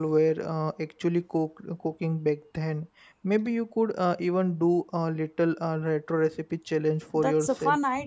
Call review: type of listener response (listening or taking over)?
taking over